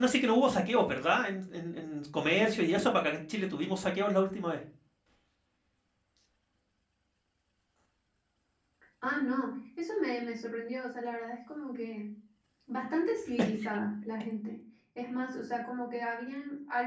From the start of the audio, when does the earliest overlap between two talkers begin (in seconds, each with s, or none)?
none